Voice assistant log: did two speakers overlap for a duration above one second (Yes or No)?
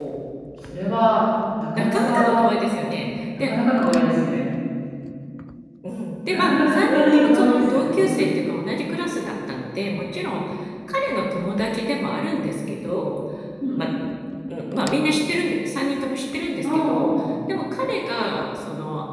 Yes